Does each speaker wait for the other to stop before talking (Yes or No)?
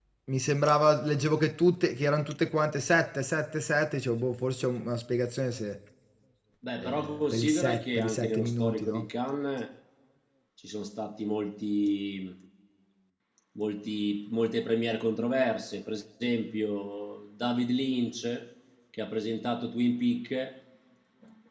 No